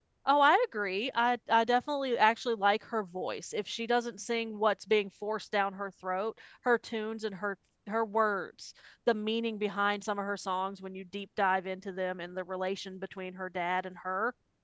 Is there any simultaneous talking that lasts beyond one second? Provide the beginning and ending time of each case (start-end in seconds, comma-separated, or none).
none